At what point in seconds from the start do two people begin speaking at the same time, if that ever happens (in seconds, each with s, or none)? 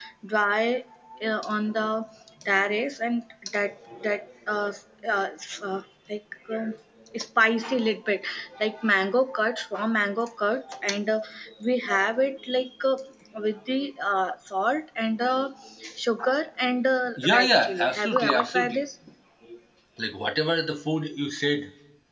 17.2 s